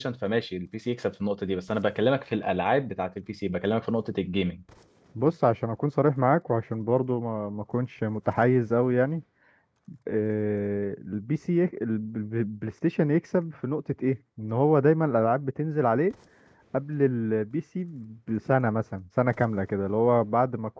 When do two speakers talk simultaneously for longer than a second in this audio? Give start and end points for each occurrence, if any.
none

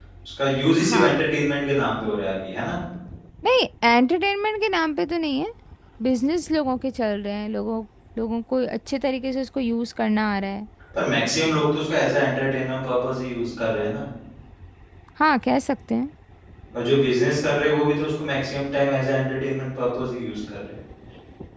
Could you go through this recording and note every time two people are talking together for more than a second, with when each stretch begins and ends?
none

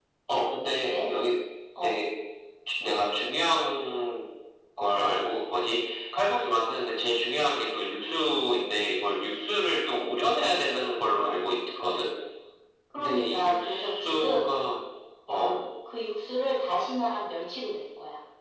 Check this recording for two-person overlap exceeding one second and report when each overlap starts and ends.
12.9-14.5

